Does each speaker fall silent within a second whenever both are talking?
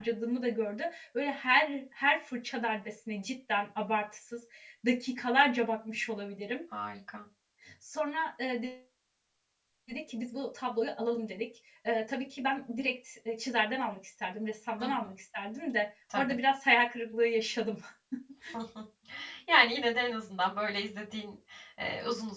Yes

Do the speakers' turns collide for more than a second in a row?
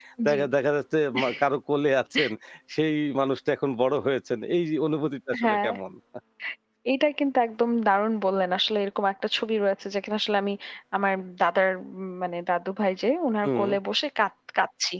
No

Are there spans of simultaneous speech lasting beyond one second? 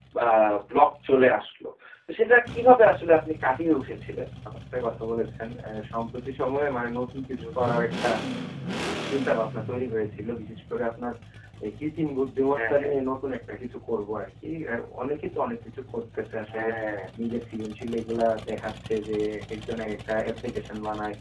No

